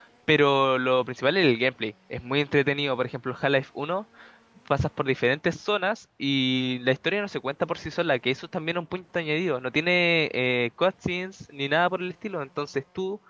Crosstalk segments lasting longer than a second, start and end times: none

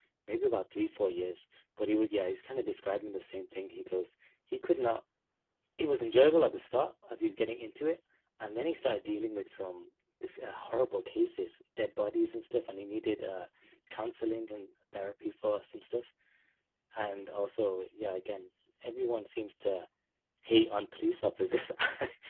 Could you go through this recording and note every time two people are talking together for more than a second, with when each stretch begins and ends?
none

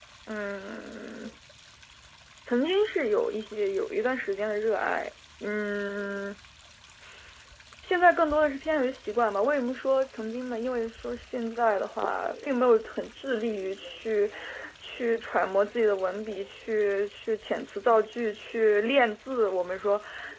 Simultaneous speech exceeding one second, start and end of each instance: none

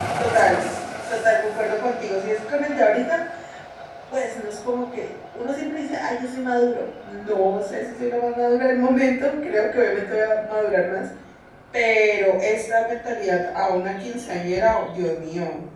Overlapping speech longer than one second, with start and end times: none

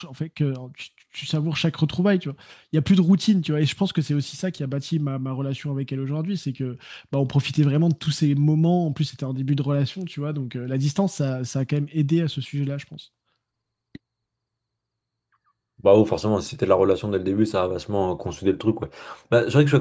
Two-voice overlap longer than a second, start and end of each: none

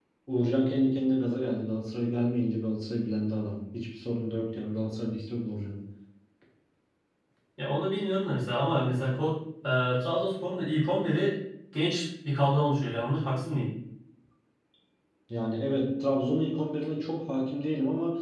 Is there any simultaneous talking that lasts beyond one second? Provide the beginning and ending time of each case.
none

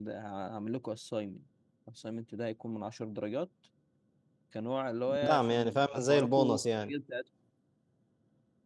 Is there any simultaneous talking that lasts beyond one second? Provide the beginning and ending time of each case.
5.2-6.9

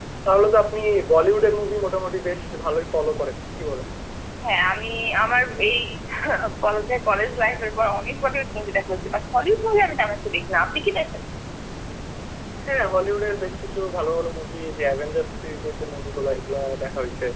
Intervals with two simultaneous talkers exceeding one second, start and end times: none

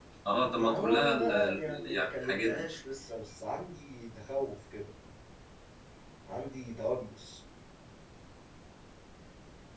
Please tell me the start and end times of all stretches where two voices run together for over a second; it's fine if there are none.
0.6-2.6

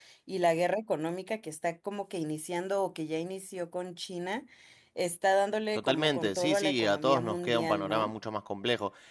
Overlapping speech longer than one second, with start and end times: 5.7-8.1

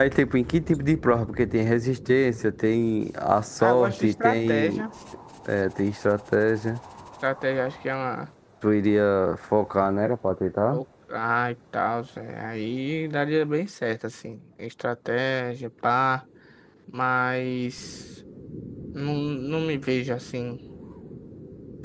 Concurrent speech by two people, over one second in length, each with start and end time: 3.6-4.8

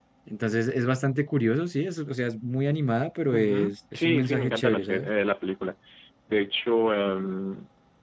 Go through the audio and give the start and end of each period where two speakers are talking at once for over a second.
3.3-5.1

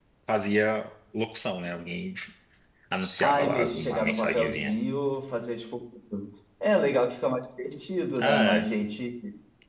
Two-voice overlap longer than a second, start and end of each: 3.2-4.7

